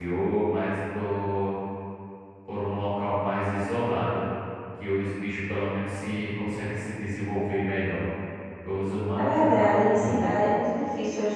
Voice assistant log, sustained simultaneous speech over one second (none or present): present